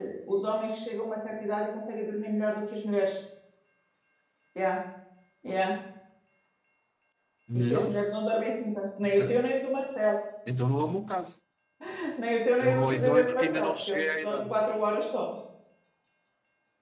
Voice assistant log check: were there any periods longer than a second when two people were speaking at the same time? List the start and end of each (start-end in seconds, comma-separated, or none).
12.6-14.6